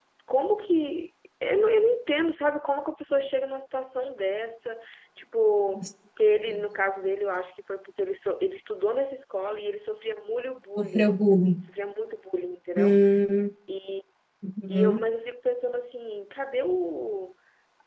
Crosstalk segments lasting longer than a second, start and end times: none

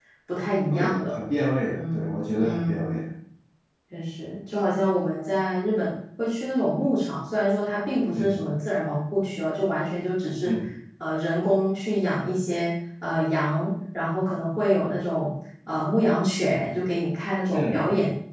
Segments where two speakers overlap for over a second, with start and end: 1.8-3.1

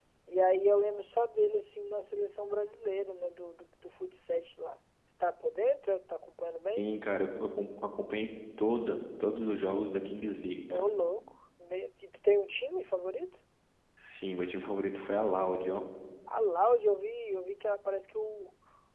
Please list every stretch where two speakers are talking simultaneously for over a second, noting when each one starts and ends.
none

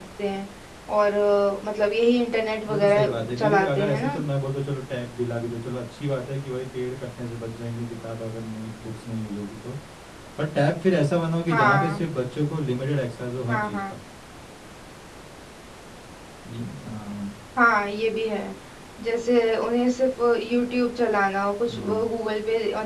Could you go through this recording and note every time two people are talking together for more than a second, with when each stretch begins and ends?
2.7-4.2

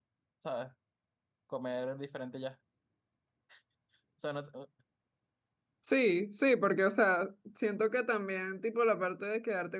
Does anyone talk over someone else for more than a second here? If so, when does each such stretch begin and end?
none

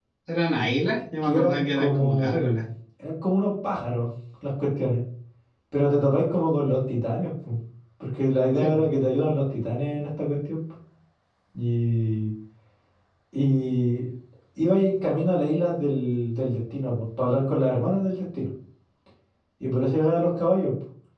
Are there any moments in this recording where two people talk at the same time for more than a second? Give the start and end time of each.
1.2-2.5

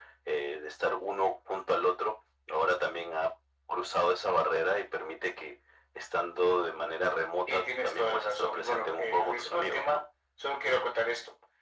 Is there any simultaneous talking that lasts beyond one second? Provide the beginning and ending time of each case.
7.5-10.0

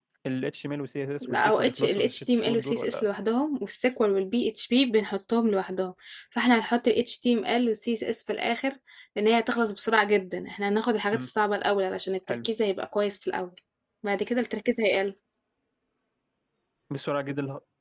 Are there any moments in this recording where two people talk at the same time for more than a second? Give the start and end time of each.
1.2-3.0

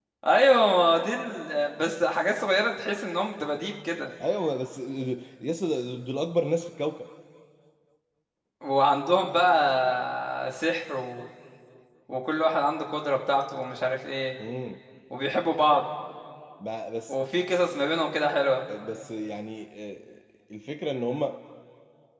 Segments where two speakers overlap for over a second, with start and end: none

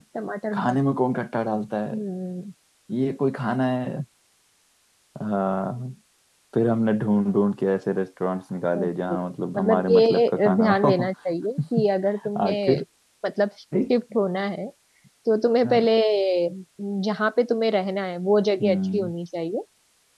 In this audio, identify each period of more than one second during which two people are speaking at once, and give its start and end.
9.6-10.9

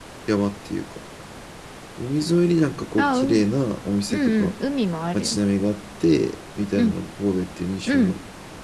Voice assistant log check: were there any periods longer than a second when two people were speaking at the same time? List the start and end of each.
none

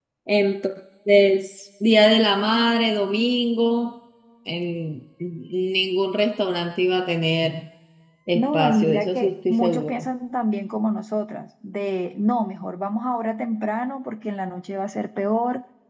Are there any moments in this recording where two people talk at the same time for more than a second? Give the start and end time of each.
8.3-10.1

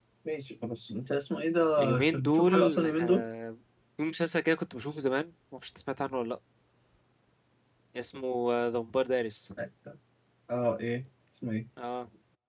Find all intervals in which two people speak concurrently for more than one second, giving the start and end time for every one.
1.8-3.2

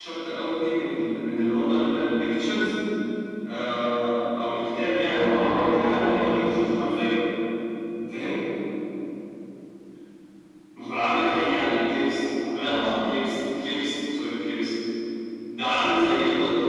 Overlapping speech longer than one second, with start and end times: 5.1-6.5

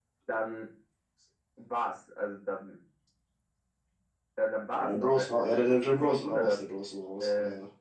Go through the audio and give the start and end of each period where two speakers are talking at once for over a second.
4.8-6.6

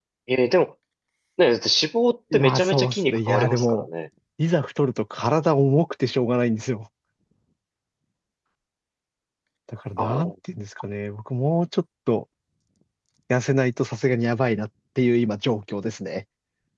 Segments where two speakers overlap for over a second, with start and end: 2.3-3.9

